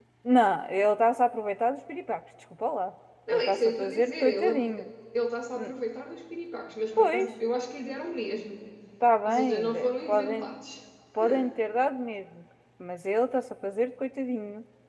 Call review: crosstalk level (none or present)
present